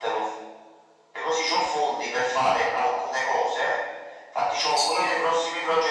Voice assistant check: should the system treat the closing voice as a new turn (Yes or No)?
No